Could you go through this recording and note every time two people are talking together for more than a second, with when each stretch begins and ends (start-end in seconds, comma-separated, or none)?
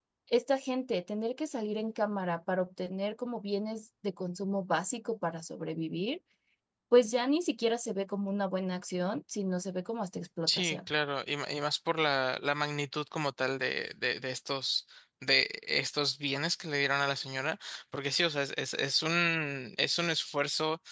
none